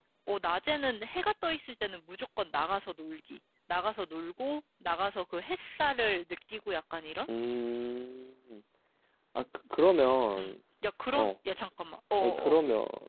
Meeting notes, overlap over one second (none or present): none